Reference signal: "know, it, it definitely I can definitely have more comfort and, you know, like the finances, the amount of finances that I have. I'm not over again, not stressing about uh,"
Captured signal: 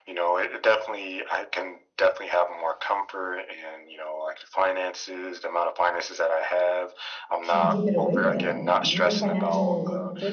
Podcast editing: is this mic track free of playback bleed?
No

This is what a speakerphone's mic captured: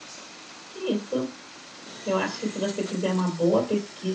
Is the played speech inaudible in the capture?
Yes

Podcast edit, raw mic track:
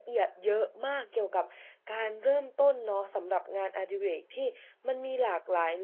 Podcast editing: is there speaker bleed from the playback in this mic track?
No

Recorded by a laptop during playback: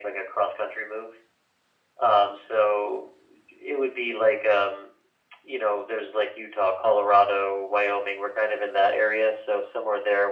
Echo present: Yes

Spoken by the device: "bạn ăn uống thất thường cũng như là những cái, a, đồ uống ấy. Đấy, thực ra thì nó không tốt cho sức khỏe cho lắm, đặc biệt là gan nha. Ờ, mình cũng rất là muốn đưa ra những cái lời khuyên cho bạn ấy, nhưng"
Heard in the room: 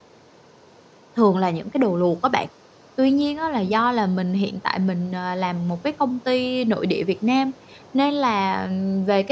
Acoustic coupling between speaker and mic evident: No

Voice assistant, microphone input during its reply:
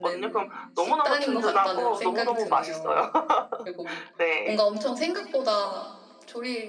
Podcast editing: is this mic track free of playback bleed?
No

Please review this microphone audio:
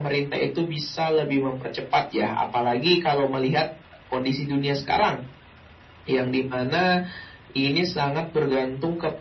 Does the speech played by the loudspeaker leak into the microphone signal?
Yes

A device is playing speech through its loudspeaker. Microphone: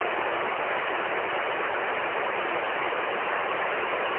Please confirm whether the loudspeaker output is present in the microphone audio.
No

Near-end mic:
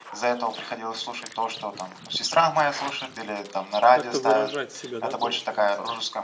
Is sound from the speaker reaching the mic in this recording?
Yes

